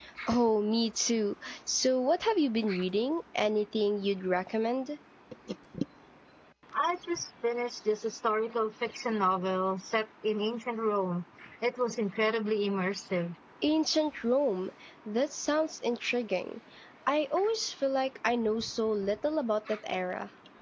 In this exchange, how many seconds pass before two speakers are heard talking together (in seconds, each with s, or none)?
none